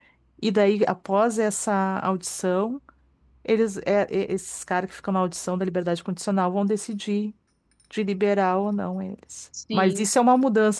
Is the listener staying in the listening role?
Yes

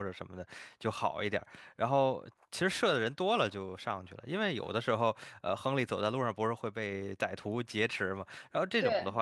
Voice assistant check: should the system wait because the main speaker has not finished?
Yes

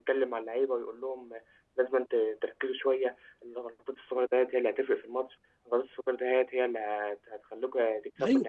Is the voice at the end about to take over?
Yes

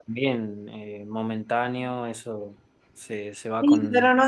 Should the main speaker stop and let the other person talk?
Yes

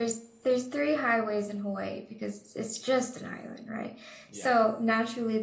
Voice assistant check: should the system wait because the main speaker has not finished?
Yes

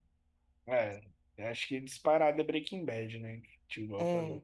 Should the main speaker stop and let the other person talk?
No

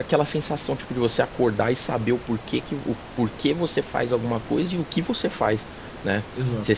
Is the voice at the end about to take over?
No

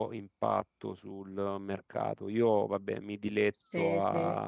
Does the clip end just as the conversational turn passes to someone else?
No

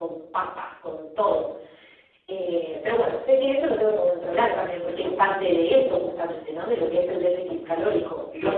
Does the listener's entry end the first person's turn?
Yes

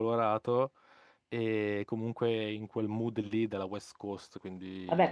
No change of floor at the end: No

